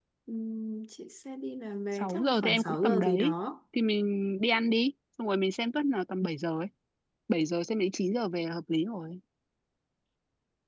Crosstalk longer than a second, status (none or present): present